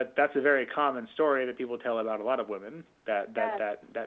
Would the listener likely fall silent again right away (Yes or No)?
Yes